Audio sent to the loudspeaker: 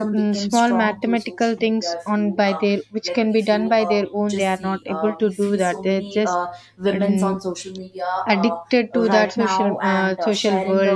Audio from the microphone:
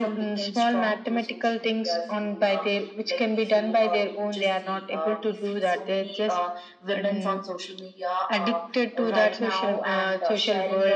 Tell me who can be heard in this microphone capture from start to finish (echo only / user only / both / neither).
echo only